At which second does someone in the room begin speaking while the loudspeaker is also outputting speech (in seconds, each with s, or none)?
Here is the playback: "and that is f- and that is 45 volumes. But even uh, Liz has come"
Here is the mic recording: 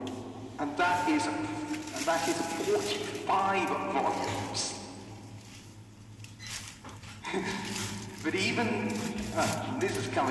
none